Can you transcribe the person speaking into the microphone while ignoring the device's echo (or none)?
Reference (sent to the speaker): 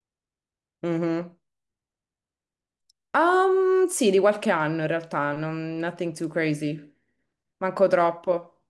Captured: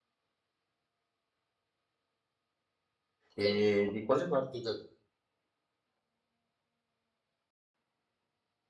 E di quale parte del...